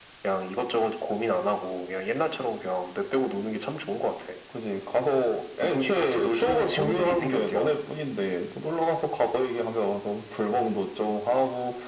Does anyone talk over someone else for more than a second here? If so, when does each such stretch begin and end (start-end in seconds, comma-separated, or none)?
5.6-7.7